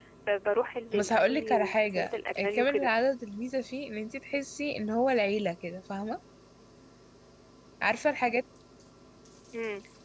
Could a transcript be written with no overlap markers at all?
No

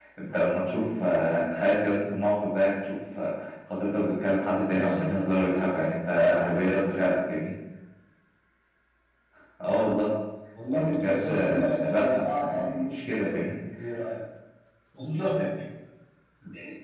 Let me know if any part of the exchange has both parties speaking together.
Yes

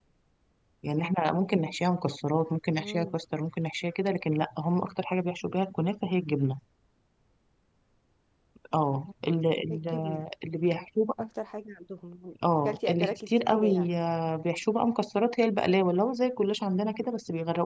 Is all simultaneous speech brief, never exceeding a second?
No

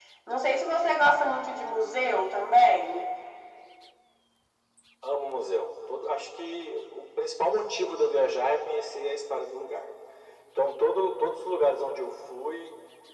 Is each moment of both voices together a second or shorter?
Yes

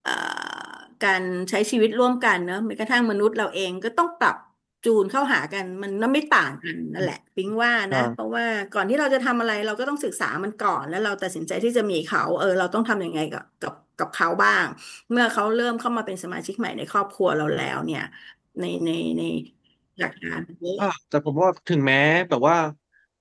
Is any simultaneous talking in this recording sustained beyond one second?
No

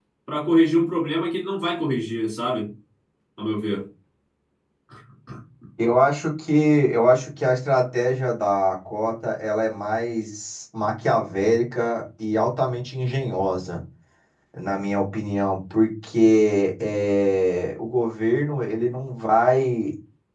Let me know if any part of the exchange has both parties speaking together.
No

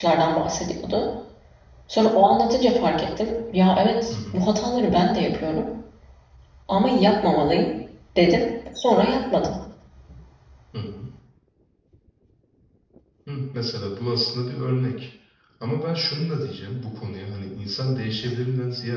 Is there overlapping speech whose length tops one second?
No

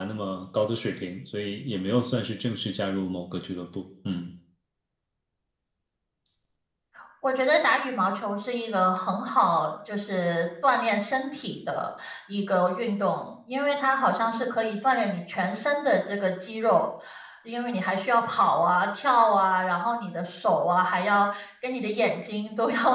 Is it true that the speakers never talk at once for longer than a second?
Yes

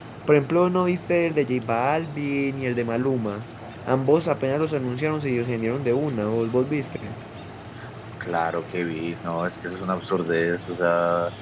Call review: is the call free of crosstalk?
Yes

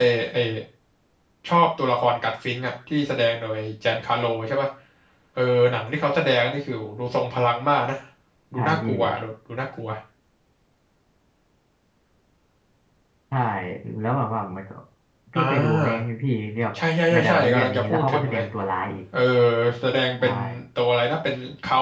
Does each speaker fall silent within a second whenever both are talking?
No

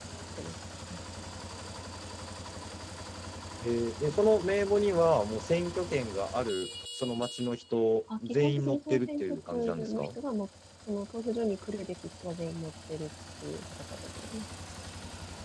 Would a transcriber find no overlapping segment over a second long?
No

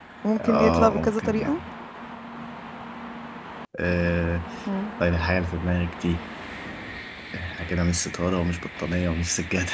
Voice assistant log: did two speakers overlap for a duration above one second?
Yes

